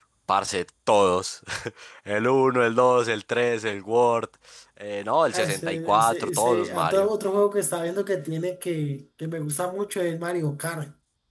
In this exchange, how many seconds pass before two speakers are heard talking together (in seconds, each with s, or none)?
5.3 s